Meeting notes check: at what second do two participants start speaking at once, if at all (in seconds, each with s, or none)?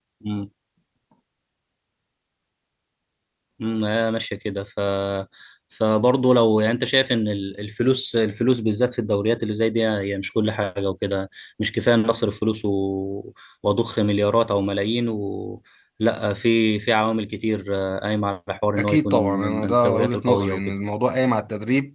18.8 s